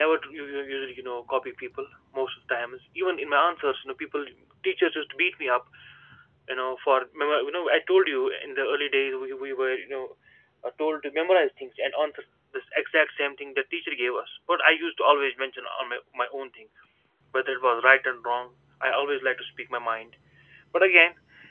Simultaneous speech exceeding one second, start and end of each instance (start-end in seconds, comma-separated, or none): none